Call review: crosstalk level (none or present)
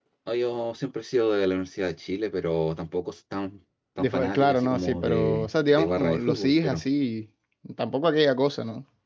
present